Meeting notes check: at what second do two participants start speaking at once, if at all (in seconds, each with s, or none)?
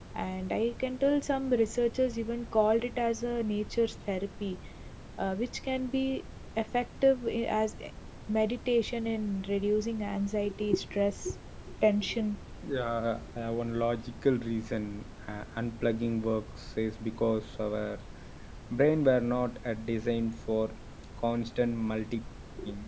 none